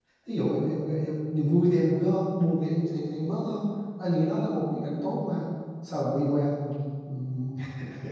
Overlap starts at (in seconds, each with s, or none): none